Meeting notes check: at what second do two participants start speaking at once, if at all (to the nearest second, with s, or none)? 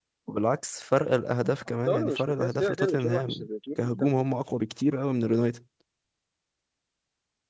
2 s